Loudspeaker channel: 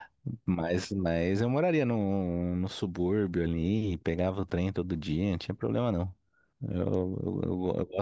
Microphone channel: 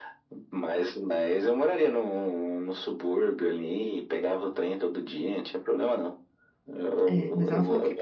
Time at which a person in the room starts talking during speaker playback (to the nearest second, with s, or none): 7 s